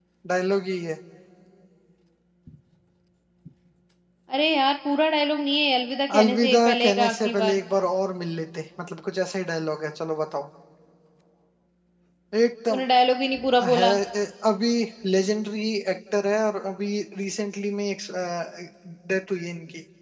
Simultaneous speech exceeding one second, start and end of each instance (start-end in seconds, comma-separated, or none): 6.2-7.6